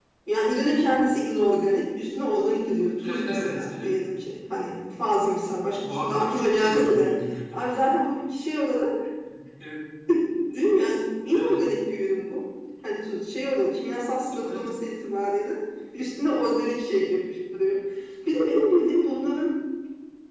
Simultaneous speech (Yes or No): Yes